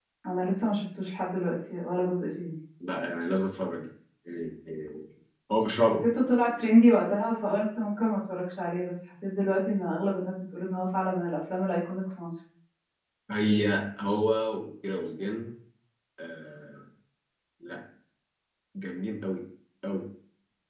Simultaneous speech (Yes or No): No